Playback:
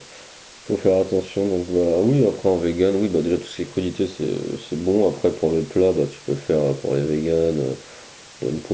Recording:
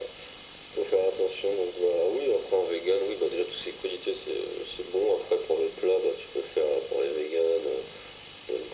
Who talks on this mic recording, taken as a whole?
echo only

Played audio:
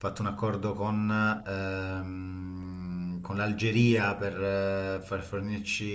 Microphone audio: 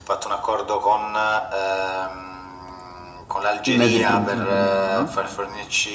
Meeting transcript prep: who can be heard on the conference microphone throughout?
both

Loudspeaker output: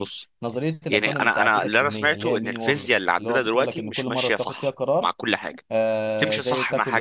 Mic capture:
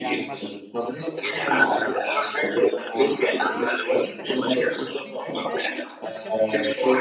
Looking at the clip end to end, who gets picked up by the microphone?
both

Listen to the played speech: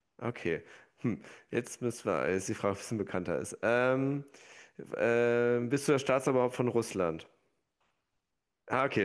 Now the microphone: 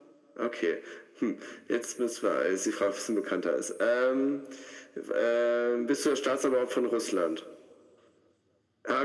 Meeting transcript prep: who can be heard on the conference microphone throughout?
echo only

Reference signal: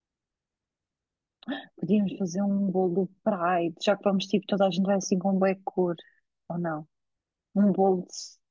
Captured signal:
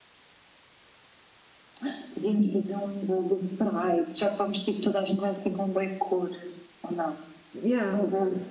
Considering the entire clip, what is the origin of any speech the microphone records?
both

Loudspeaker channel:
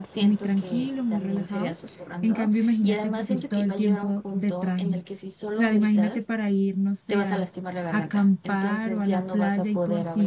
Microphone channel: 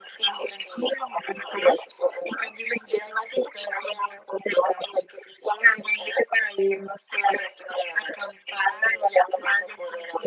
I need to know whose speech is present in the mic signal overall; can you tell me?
echo only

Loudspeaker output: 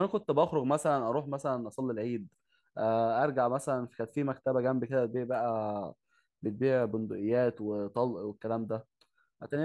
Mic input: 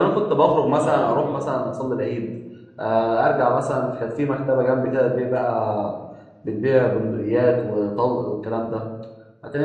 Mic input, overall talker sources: both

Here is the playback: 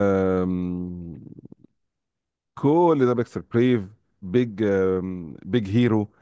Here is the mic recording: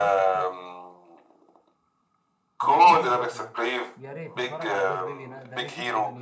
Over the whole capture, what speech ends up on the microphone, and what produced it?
both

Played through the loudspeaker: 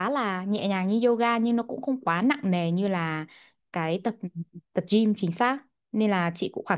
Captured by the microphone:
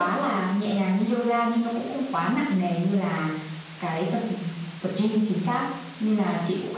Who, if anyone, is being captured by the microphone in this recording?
echo only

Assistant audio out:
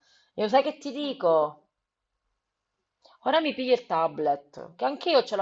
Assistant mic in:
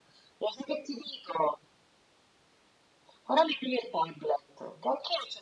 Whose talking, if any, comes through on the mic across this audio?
echo only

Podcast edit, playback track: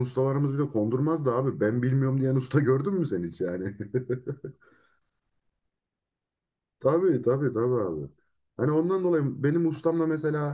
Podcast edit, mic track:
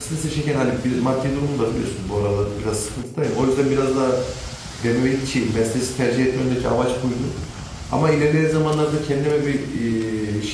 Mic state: user only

